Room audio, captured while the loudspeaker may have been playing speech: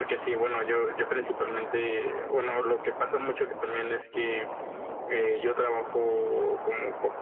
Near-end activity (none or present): none